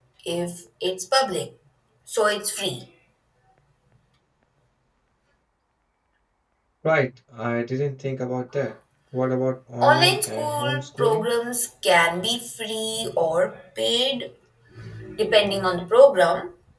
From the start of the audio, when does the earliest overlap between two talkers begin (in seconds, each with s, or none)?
9.8 s